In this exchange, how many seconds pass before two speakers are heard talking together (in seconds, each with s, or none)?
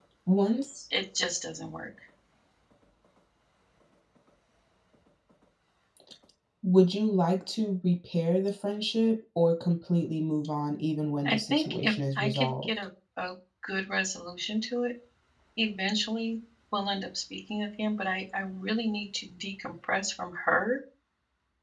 11.2 s